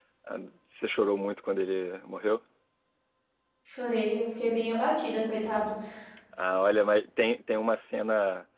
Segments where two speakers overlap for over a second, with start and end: none

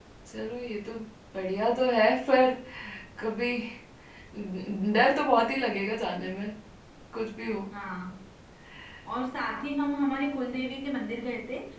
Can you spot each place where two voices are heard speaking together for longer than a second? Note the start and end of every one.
none

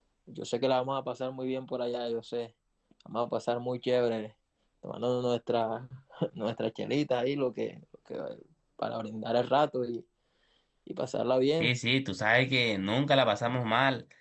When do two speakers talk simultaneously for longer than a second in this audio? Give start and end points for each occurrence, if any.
none

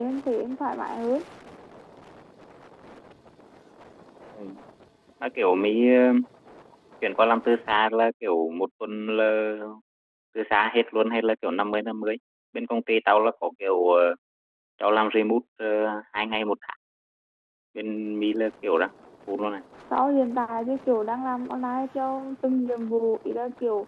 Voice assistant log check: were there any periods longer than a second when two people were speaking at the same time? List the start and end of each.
none

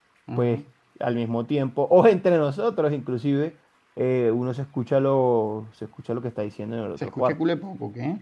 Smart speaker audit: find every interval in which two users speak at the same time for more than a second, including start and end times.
none

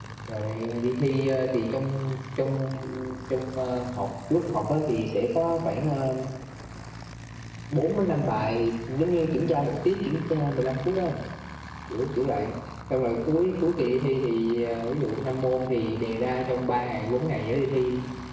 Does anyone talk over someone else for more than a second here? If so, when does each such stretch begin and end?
none

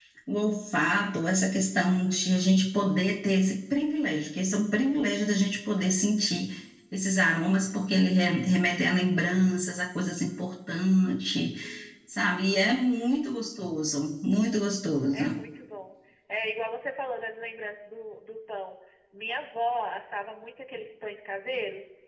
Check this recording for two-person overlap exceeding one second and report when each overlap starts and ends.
none

